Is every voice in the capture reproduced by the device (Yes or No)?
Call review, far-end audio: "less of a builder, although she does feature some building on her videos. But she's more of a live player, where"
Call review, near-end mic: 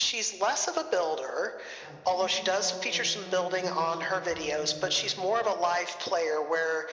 No